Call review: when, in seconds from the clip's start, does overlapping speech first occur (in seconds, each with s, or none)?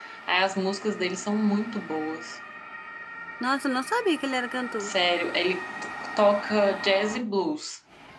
none